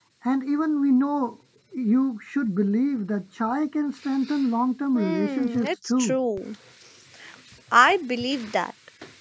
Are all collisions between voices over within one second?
No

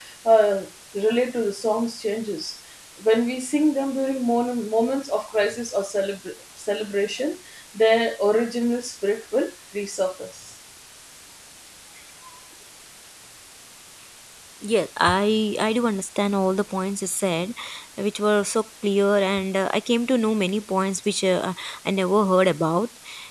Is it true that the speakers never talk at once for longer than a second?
Yes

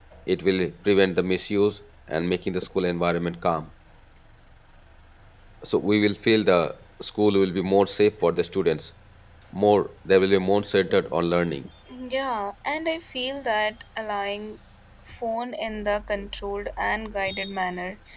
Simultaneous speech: No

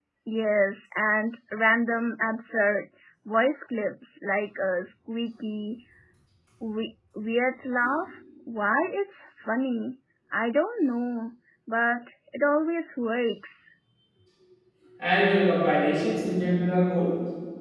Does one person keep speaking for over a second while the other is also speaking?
No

